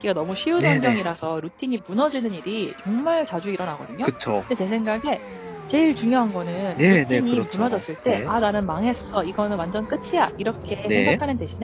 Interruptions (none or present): present